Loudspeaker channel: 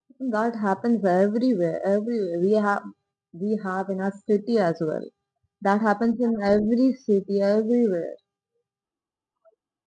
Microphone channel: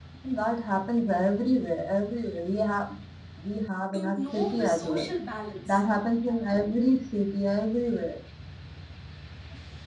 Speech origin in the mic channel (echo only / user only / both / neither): both